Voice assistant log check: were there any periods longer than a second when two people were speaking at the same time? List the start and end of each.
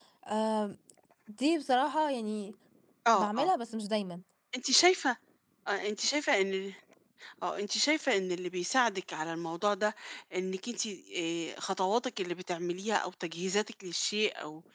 none

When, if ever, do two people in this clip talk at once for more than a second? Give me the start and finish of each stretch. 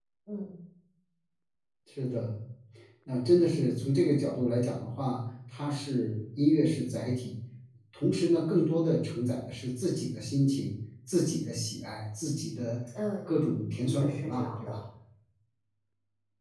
13.5-14.7

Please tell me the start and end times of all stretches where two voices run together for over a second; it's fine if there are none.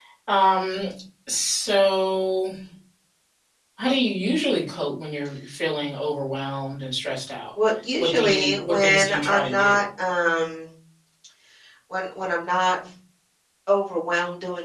8.0-9.8

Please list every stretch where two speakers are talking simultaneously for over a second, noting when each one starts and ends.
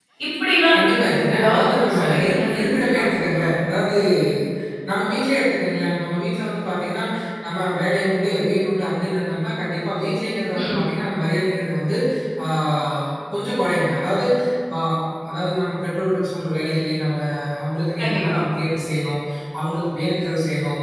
0.7-3.0

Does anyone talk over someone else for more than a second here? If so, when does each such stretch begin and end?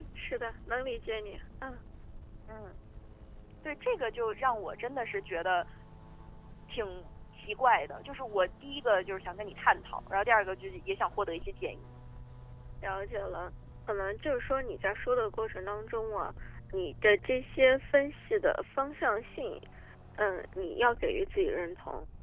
none

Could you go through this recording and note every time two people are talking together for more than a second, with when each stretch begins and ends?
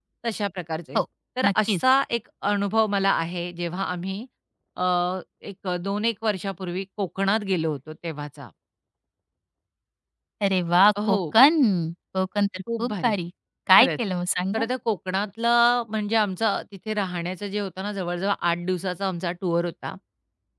none

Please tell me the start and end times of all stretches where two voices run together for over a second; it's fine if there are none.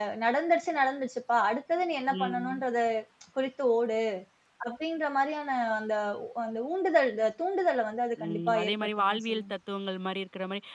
8.2-9.5

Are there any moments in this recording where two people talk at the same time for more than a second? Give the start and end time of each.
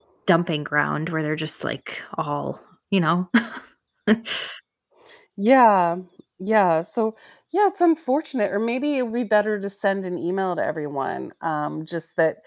none

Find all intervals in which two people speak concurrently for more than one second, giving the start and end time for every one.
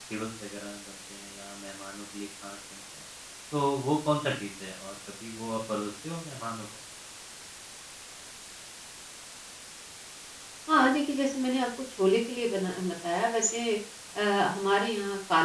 none

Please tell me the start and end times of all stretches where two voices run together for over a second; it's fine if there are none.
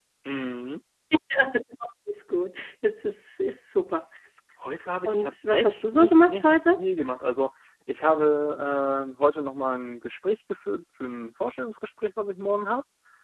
5.0-6.8

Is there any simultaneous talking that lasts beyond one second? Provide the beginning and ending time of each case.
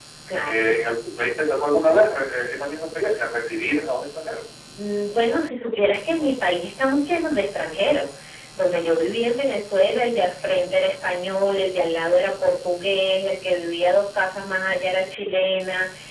none

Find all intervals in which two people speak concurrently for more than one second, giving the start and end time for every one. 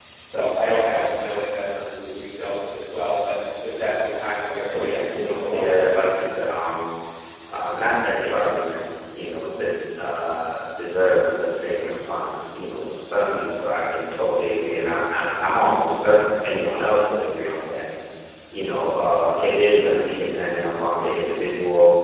4.7-6.0

